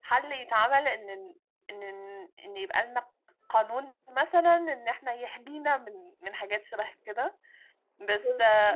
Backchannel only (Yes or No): Yes